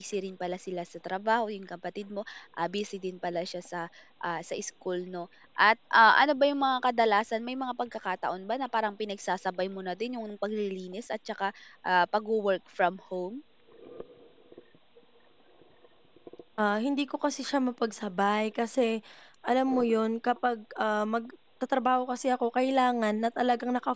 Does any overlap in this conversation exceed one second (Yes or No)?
No